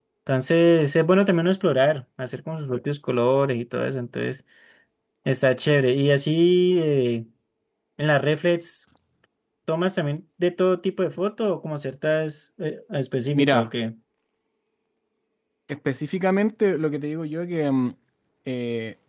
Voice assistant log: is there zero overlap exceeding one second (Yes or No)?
Yes